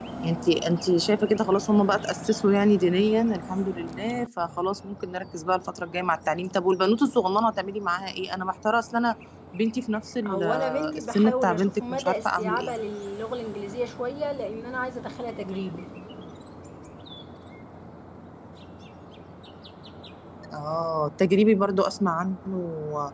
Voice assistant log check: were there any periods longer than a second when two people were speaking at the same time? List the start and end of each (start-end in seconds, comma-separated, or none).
10.3-12.7